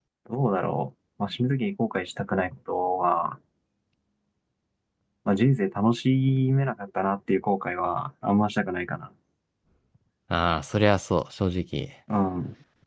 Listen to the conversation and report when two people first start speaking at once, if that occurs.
none

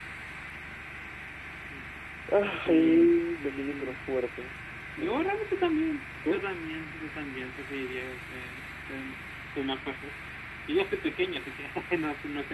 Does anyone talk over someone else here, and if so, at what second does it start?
2.7 s

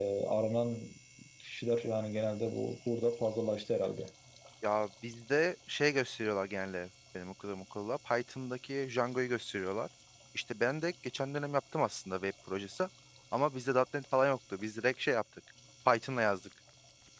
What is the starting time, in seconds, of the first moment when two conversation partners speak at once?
none

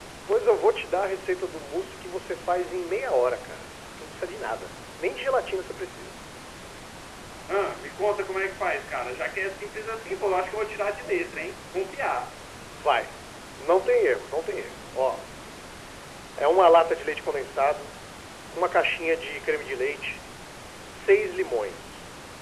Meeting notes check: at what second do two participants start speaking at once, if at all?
none

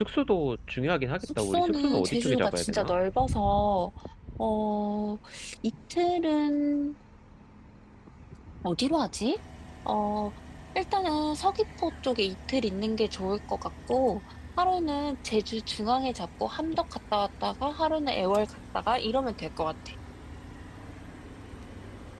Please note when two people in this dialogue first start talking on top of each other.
1.2 s

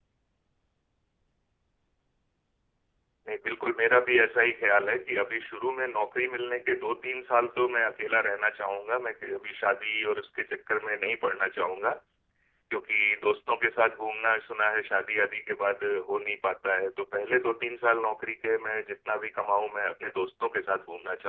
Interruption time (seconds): none

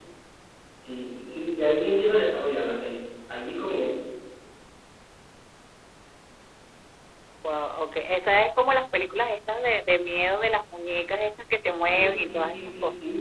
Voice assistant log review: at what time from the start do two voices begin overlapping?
11.8 s

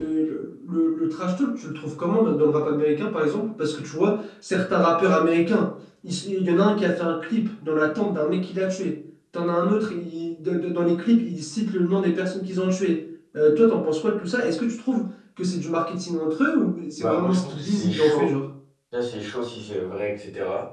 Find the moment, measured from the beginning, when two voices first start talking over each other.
17.0 s

